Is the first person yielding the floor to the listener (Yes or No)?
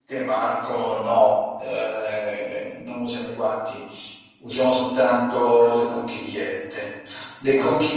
No